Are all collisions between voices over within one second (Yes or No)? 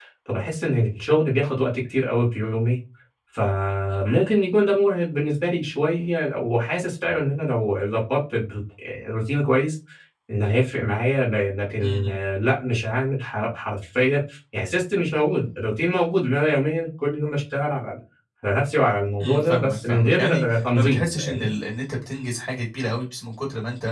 No